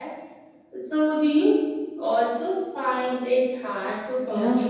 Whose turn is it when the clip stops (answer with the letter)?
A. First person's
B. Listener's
B